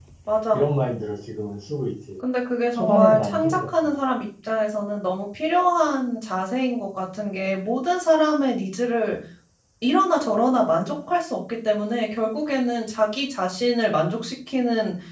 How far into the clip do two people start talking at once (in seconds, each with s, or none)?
2.7 s